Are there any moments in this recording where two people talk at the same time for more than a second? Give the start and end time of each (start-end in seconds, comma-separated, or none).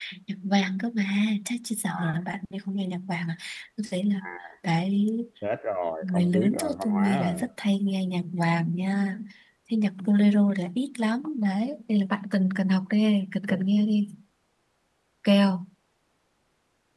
6.0-7.4